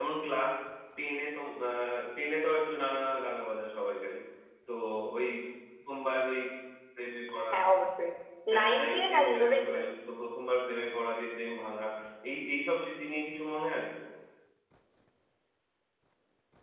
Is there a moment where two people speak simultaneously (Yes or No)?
Yes